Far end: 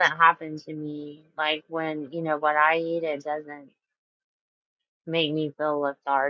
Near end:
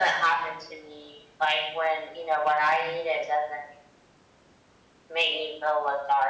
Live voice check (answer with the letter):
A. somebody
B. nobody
B